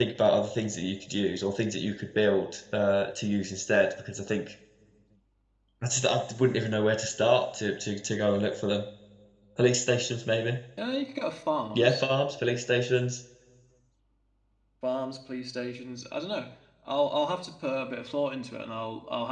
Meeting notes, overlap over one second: none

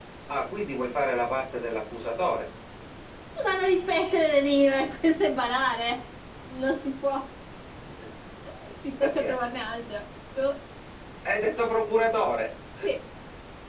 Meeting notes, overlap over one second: none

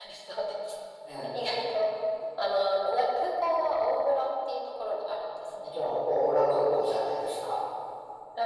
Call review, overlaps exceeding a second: none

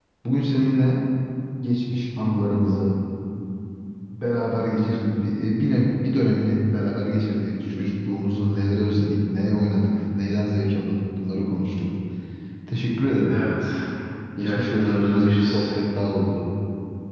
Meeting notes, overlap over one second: present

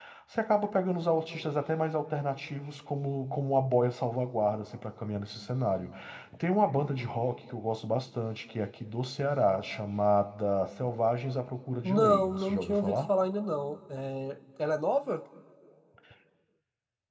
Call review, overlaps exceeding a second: present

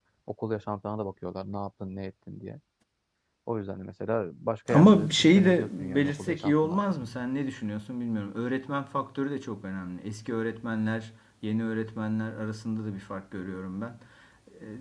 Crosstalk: present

